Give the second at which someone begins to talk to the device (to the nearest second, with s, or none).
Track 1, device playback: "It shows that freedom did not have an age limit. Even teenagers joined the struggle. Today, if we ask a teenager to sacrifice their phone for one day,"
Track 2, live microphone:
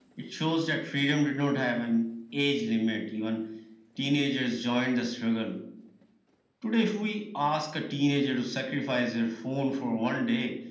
none